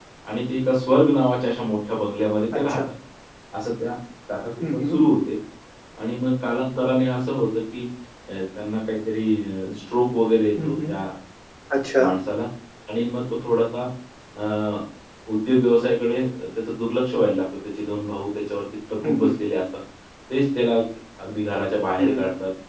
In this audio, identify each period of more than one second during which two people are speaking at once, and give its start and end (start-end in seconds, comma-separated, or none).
none